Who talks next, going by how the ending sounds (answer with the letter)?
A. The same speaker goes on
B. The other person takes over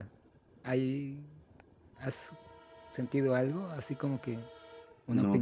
B